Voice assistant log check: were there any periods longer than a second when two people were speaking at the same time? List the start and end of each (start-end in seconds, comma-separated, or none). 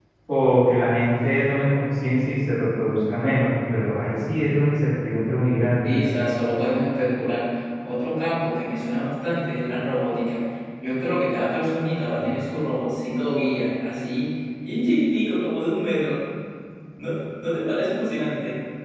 none